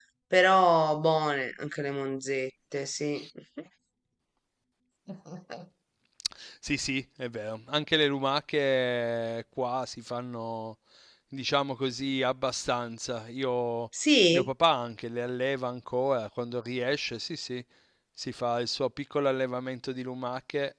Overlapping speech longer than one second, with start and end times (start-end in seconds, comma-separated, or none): none